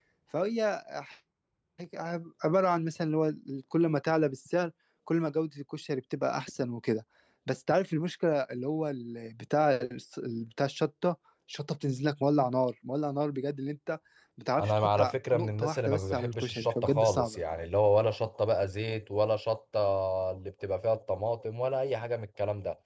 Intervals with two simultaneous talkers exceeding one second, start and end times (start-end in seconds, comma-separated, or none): 14.6-17.4